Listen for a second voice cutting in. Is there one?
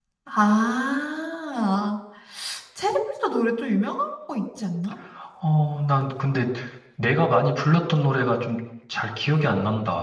No

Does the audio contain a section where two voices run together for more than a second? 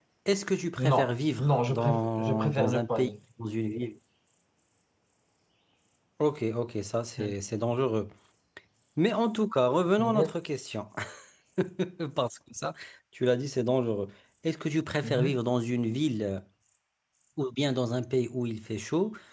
Yes, from 0.8 s

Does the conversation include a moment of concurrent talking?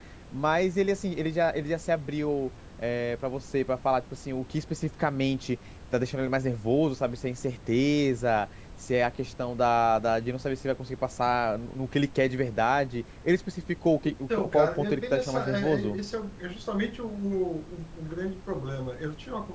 Yes, from 14.0 s

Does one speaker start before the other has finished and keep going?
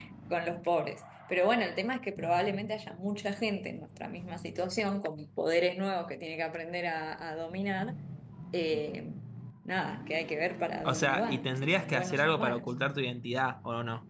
Yes, from 10.8 s

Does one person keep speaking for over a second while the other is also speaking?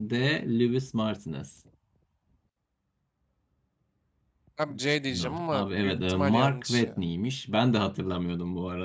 Yes, from 5.1 s

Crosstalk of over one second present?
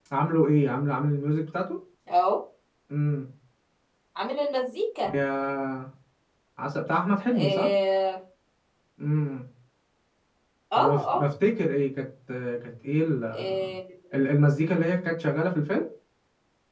No

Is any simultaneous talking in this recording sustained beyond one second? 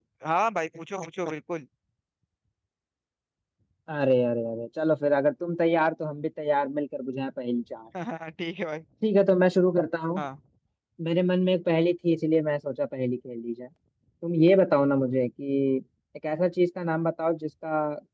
No

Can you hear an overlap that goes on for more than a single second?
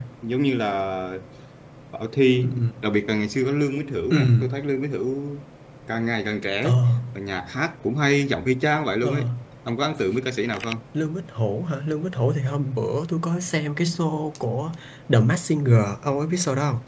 No

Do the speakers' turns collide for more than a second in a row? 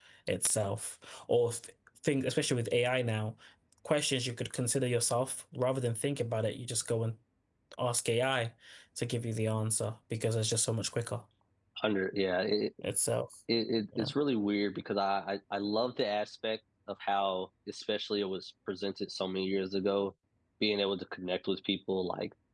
No

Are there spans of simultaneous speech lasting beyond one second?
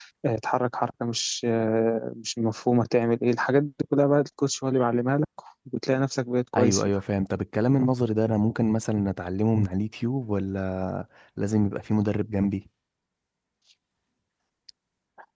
No

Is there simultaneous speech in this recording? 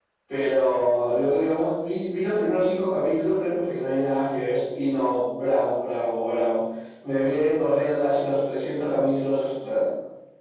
No

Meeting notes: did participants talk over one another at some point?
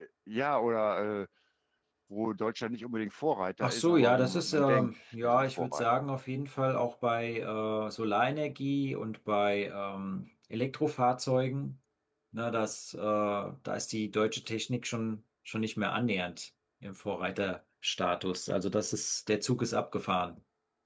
Yes, from 3.6 s

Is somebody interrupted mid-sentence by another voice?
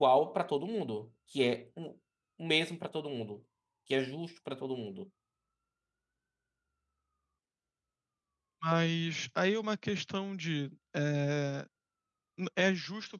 No

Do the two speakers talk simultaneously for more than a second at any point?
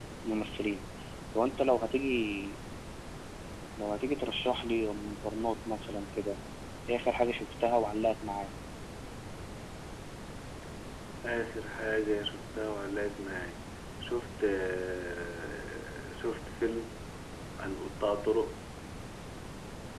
No

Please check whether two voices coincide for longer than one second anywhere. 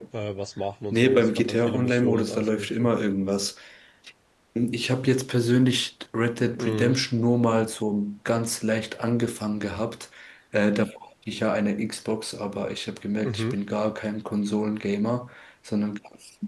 Yes, from 0.9 s

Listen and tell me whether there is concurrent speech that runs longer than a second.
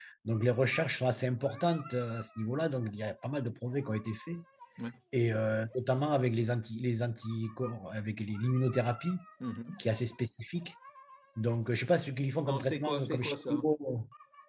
Yes, from 12.4 s

